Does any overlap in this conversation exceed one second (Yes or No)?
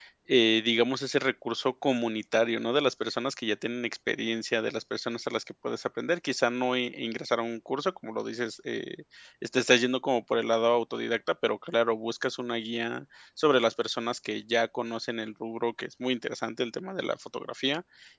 No